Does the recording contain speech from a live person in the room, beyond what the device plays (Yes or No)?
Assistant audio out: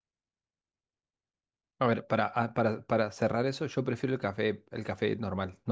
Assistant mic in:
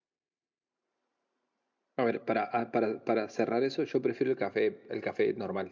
No